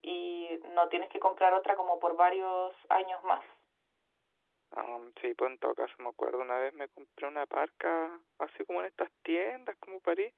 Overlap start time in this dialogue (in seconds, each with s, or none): none